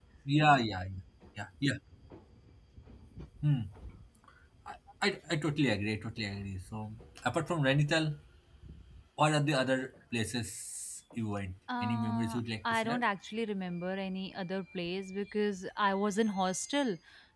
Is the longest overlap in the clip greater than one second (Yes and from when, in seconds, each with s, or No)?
Yes, from 11.7 s